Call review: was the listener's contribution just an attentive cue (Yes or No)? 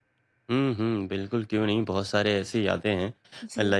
Yes